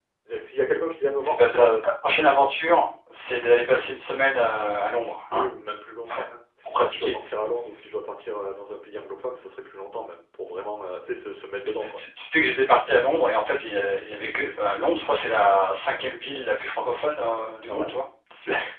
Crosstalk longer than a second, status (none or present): none